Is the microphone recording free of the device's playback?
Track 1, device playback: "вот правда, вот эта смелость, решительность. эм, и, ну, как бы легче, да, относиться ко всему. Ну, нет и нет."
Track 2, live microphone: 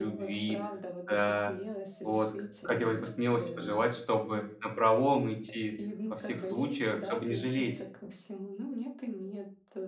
No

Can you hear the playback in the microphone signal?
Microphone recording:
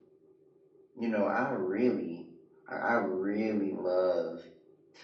No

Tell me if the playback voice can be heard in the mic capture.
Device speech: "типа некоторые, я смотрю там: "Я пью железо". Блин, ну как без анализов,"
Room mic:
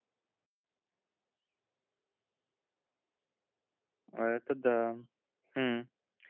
No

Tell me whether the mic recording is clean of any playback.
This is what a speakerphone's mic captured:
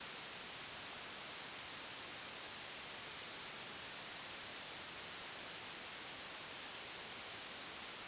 Yes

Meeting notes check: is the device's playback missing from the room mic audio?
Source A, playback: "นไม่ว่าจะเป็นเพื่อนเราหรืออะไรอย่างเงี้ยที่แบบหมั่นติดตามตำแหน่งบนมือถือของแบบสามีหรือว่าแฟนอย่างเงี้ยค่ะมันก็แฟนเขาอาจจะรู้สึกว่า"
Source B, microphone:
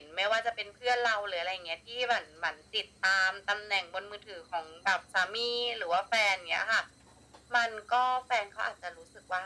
No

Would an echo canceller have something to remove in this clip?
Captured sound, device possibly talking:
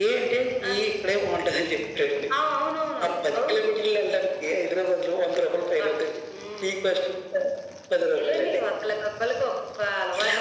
Yes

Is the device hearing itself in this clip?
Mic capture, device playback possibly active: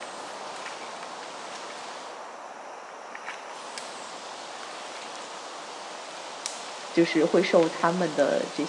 No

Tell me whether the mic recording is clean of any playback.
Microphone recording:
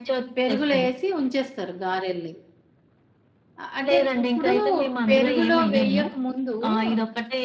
No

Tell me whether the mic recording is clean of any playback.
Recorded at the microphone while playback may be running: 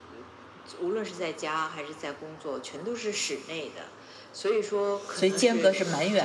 No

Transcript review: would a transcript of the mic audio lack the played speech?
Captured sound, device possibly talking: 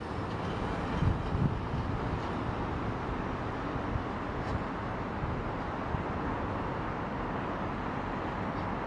Yes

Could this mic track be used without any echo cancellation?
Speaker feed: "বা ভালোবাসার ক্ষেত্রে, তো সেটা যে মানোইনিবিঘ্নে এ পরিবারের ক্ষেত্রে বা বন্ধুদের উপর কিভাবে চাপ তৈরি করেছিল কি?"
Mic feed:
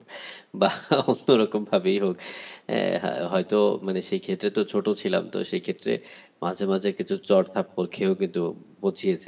Yes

